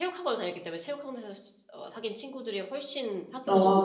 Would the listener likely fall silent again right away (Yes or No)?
No